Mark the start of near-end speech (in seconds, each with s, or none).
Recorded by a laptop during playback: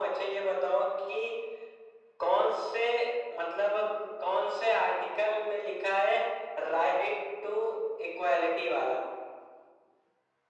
none